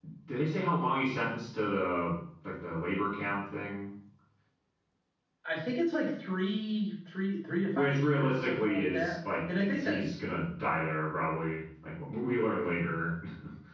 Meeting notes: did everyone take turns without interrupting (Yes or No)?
No